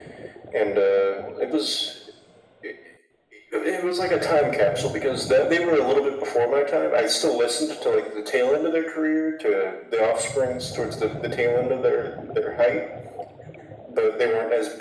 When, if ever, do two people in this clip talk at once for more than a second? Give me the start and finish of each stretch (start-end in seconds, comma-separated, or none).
none